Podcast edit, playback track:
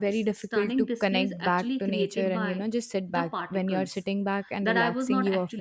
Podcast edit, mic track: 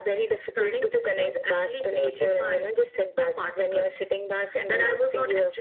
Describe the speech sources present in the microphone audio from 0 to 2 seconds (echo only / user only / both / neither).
echo only